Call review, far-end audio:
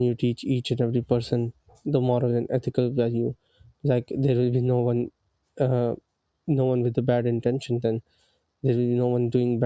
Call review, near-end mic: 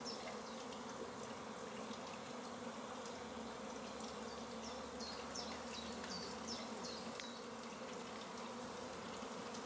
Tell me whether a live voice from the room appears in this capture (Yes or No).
No